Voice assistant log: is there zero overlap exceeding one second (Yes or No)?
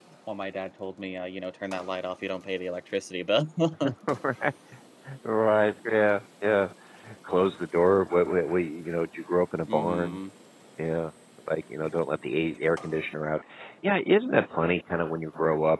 Yes